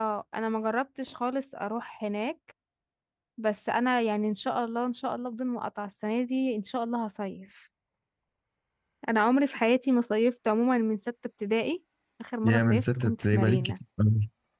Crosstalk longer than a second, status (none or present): present